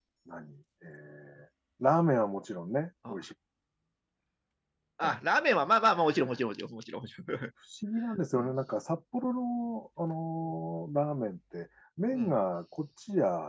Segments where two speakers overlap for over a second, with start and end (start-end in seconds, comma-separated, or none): none